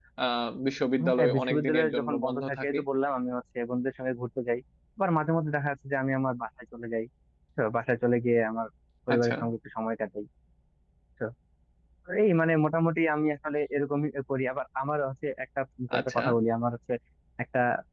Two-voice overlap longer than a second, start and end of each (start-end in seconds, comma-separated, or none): 1.2-2.8